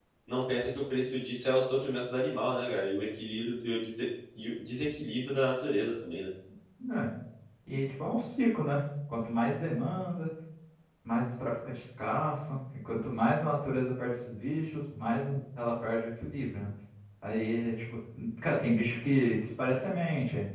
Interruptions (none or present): none